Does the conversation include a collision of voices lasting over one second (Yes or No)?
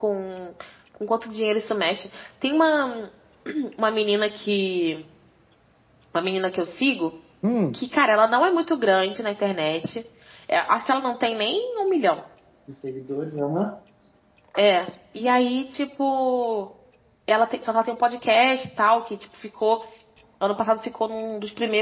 No